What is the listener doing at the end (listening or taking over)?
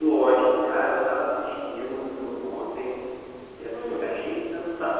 listening